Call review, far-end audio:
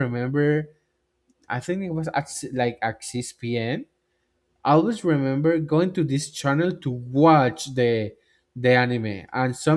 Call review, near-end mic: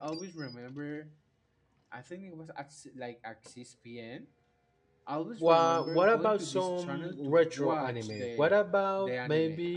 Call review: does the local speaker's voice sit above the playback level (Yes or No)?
Yes